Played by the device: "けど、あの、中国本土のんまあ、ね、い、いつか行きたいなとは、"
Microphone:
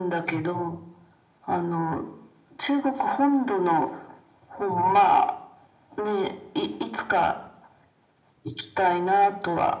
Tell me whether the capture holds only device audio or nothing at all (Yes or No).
Yes